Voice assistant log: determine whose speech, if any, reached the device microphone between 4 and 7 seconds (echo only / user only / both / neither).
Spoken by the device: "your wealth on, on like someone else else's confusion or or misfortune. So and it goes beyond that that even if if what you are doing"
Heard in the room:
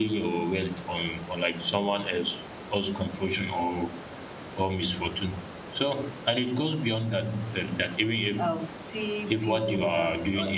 echo only